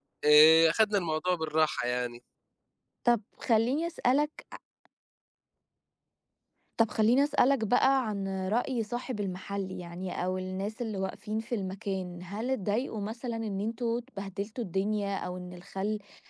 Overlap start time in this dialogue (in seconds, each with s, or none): none